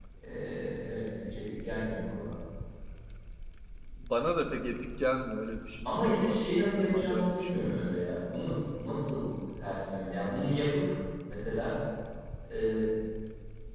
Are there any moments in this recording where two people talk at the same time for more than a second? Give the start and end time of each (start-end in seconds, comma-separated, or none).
5.8-7.6